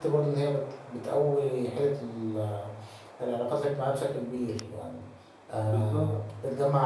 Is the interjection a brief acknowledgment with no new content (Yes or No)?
Yes